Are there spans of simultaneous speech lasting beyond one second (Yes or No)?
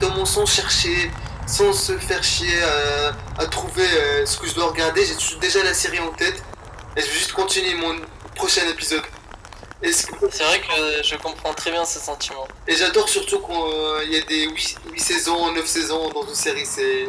No